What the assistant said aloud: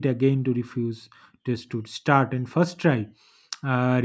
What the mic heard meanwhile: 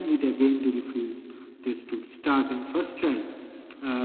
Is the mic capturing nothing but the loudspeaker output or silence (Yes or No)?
Yes